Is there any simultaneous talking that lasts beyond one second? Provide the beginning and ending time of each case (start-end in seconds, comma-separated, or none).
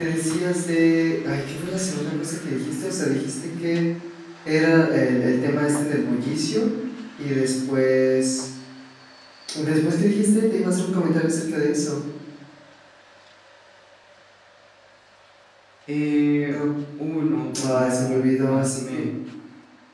17.6-19.1